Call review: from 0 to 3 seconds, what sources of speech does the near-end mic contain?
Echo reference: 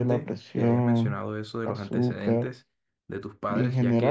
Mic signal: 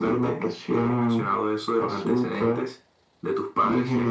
echo only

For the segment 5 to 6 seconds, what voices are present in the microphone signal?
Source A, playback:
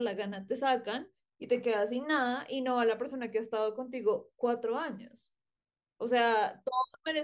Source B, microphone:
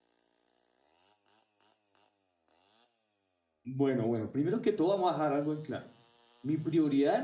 user only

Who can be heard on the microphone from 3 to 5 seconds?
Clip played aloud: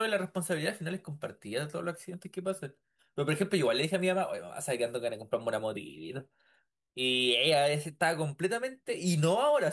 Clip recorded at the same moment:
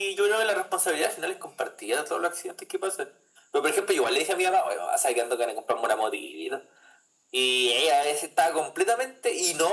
echo only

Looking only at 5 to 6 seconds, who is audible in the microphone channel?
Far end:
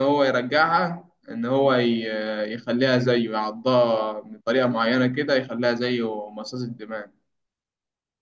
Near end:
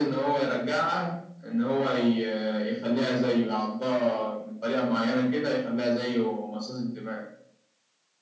echo only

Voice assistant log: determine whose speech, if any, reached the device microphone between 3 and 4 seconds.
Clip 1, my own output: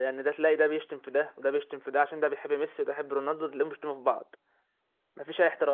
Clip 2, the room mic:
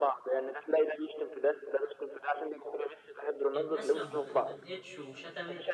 both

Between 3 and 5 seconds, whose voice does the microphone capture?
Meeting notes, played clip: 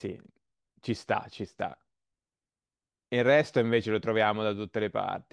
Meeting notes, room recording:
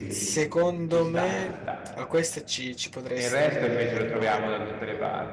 both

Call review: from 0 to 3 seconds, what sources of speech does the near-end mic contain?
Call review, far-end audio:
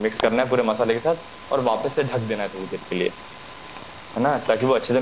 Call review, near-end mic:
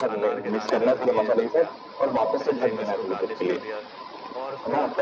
both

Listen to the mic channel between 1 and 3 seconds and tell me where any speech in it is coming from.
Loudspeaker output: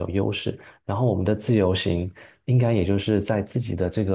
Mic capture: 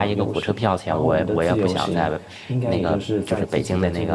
both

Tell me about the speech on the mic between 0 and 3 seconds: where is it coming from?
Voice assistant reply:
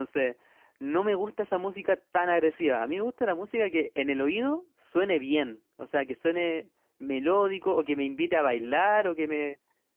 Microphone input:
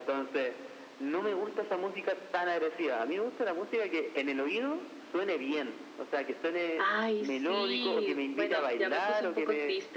echo only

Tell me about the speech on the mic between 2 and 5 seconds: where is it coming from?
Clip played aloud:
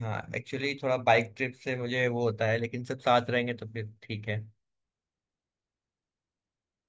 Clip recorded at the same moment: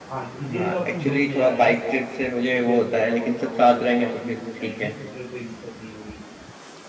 both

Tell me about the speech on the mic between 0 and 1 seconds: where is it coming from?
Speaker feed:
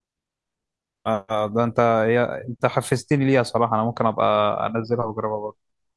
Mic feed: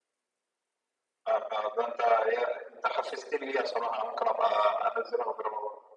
neither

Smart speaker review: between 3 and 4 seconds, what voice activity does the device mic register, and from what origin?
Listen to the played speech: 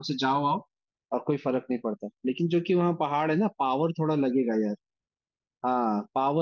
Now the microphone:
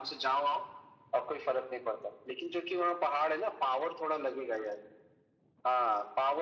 echo only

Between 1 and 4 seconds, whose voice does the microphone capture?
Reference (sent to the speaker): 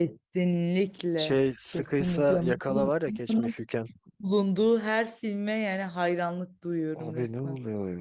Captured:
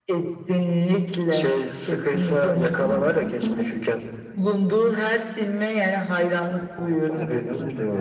echo only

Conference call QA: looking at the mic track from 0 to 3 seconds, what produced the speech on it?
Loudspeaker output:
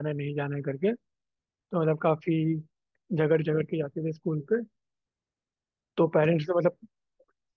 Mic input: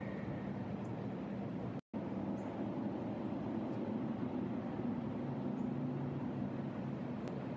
neither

